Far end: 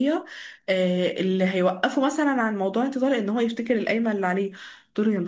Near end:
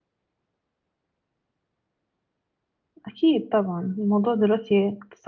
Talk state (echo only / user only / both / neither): user only